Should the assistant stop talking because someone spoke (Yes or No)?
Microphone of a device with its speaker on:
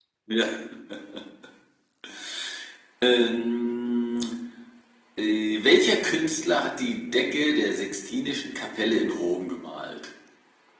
No